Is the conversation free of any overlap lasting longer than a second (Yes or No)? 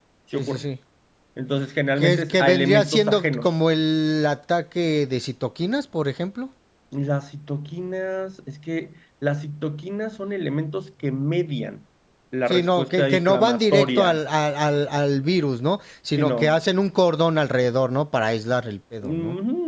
No